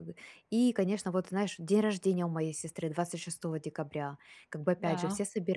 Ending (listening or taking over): listening